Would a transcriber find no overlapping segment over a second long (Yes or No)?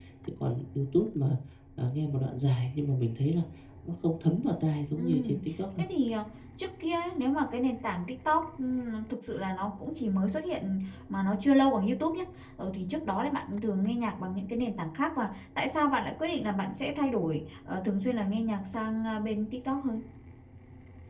Yes